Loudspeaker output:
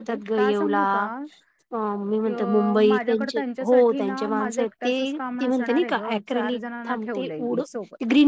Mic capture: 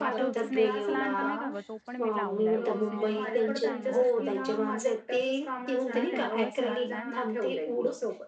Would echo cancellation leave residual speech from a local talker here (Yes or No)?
Yes